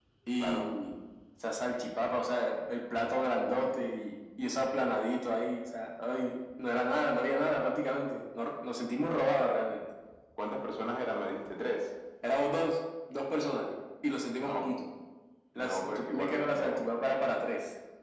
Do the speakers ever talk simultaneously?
Yes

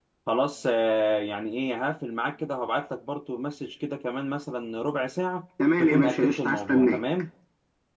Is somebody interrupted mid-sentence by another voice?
Yes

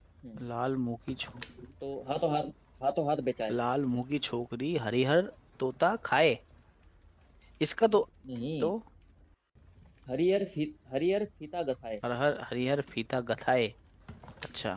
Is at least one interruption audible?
No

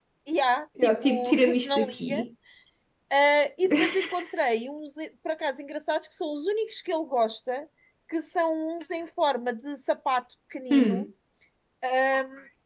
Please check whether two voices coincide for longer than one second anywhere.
Yes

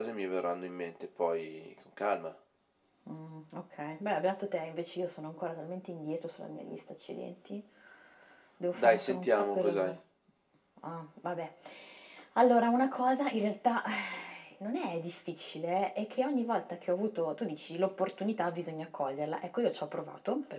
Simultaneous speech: Yes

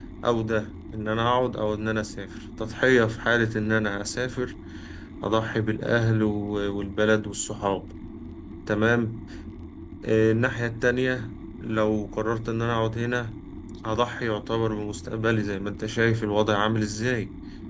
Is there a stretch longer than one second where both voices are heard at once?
No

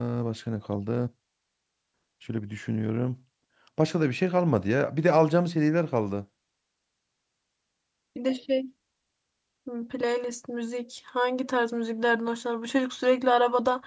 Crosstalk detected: No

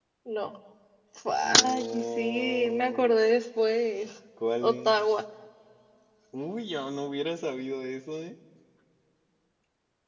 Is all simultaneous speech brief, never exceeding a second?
No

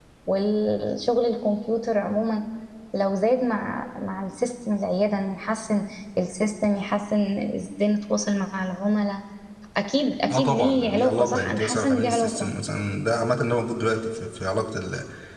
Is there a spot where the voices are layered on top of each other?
Yes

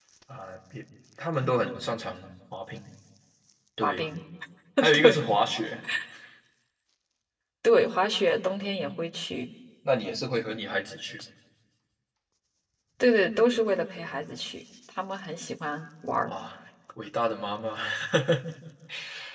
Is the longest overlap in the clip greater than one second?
No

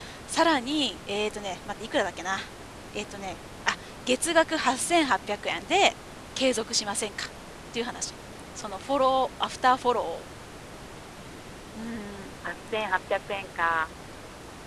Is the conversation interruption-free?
Yes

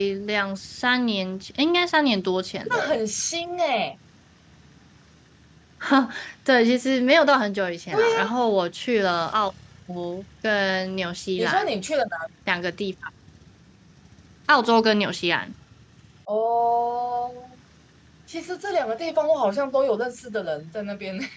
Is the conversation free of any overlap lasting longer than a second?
Yes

